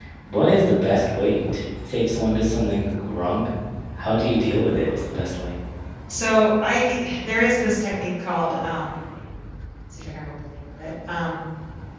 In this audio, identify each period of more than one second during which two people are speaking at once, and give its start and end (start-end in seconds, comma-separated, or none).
none